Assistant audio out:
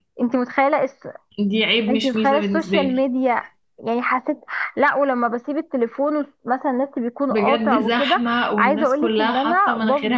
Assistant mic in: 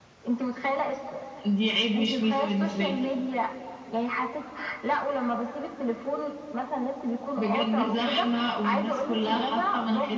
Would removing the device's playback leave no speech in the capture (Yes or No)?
Yes